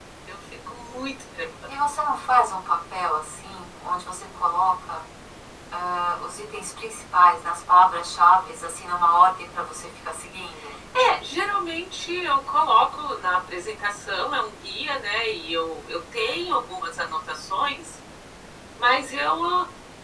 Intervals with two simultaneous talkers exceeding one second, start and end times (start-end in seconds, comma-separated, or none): none